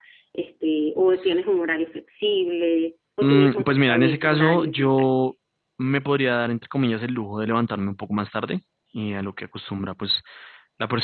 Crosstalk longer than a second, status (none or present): present